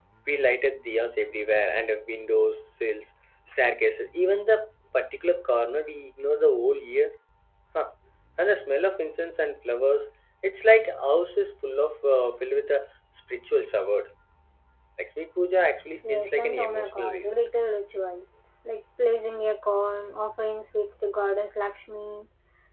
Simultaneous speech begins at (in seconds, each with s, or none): 16.0 s